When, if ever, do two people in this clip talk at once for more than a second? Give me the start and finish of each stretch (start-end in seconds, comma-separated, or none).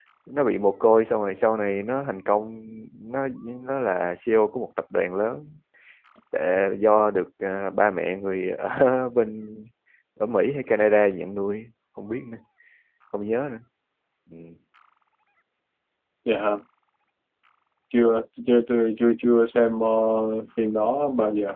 none